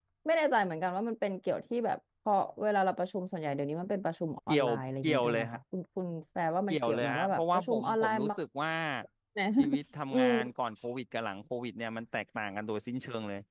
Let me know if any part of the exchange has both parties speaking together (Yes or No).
Yes